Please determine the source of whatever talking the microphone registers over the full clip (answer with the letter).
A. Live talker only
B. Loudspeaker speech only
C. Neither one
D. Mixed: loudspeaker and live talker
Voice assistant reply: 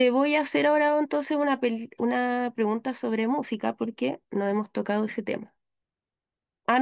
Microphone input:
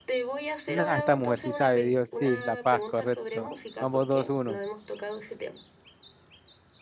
D